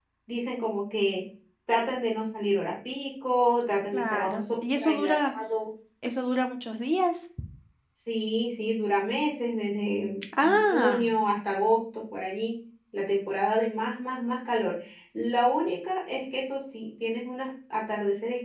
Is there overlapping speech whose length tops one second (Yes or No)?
Yes